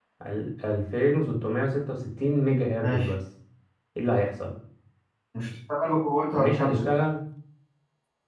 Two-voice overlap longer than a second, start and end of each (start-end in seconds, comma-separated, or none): none